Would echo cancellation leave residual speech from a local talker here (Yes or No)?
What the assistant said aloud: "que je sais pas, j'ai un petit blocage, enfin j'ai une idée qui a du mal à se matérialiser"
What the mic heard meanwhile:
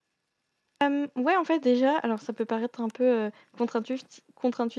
Yes